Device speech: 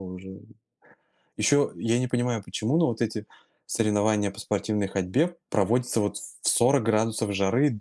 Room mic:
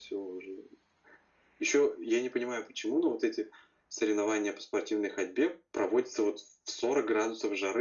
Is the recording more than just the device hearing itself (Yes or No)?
No